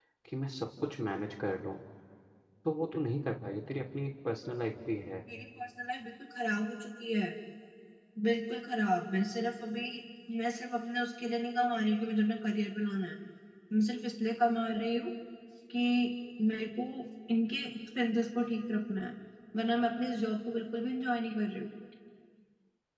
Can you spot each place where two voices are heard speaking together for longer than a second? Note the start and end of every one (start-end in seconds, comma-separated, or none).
none